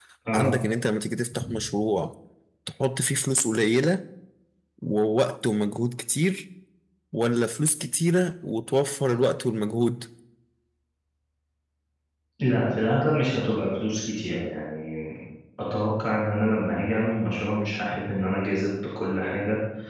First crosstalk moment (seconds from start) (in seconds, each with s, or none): none